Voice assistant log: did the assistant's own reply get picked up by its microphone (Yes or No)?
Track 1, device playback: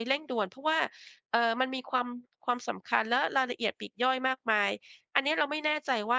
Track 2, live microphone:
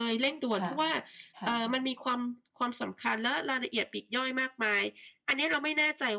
Yes